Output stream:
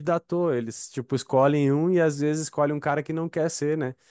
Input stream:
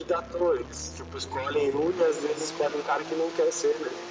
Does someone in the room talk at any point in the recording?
No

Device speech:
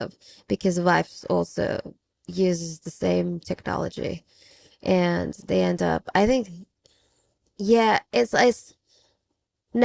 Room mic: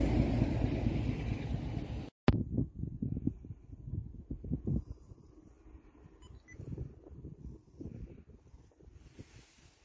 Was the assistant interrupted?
No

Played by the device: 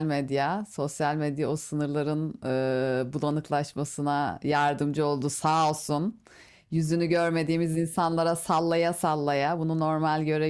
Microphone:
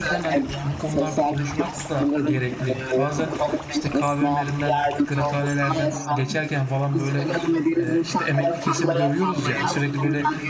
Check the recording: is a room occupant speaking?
Yes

